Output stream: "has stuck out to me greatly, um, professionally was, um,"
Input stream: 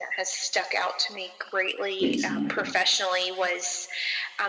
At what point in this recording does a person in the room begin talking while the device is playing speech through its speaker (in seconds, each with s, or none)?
2.0 s